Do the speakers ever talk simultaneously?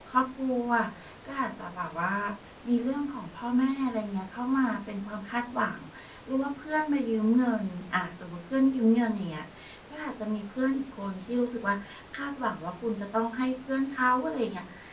No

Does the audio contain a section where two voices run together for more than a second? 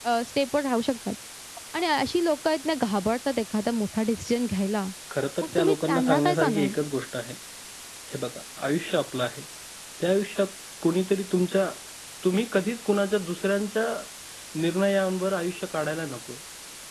Yes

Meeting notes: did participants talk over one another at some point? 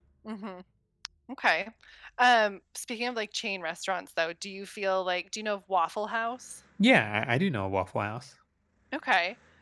No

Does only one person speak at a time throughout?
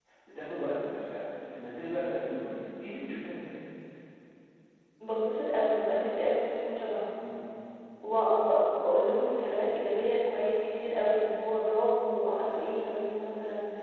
Yes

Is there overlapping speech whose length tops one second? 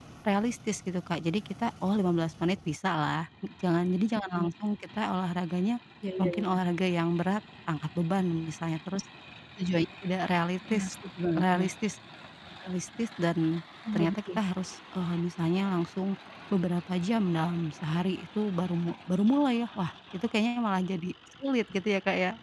No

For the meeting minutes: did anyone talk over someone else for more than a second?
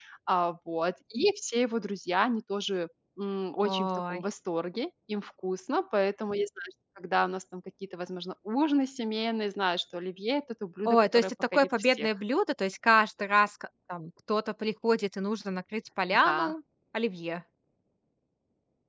Yes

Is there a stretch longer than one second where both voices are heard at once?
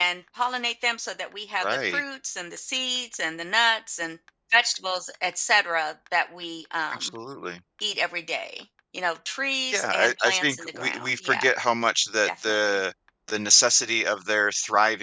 Yes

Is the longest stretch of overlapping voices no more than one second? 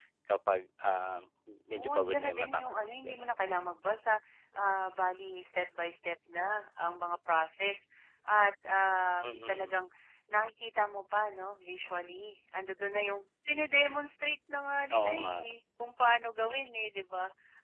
No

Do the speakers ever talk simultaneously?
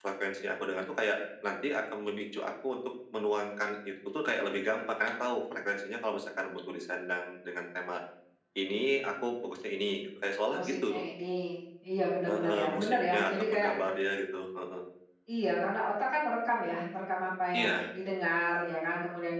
Yes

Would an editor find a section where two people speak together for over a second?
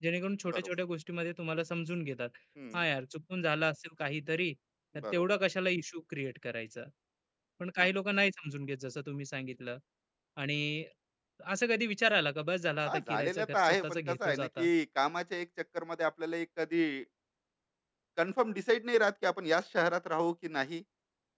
Yes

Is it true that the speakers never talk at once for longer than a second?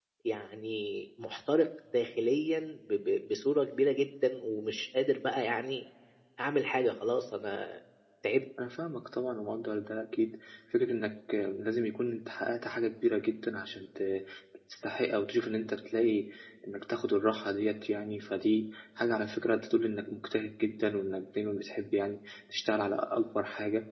Yes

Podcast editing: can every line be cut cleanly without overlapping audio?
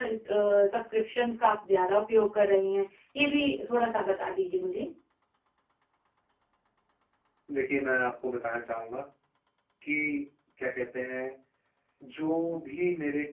Yes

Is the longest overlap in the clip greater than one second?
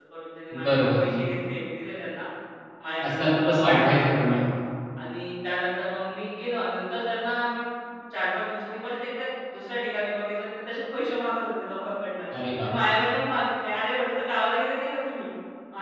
Yes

